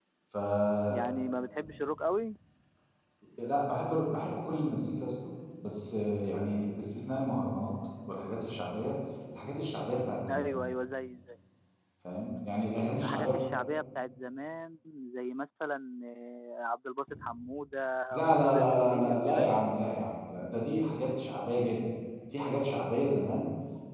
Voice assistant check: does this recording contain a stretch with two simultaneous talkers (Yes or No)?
Yes